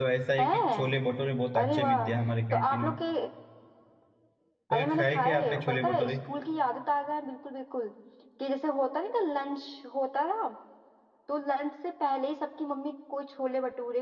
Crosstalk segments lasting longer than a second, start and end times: 4.7-6.1

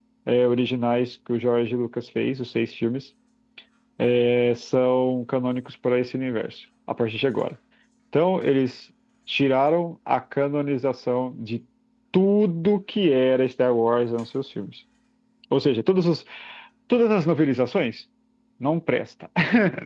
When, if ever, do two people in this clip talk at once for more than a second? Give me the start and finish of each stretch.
none

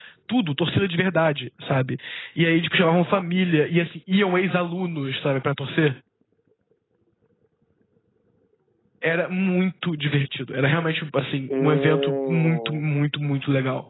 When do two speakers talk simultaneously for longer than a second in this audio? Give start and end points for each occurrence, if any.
11.5-12.9

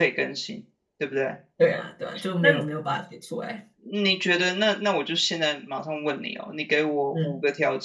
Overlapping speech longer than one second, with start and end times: none

